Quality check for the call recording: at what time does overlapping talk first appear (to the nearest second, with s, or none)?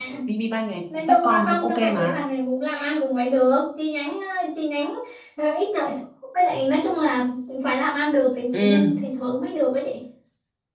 1 s